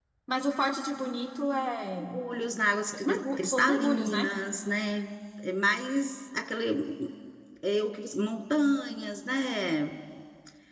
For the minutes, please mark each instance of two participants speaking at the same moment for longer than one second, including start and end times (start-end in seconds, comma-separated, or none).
3.0-4.3